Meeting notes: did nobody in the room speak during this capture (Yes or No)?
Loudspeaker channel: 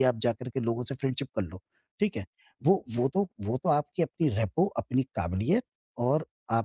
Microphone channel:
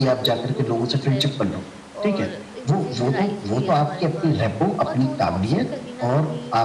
No